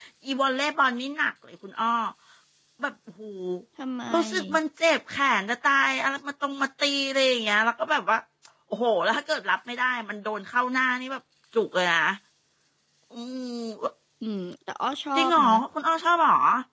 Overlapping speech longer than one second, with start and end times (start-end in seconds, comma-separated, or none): none